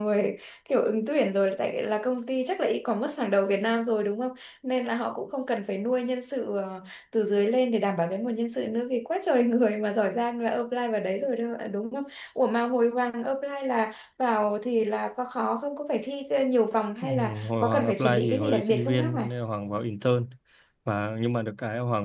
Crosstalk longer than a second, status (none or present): present